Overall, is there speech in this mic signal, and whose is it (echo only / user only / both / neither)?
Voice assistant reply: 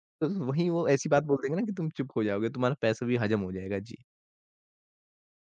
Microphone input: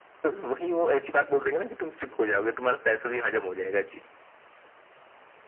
echo only